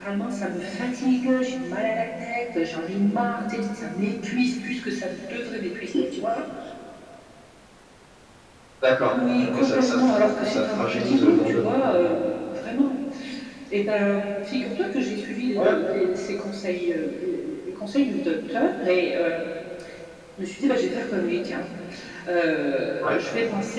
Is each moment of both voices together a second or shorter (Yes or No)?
No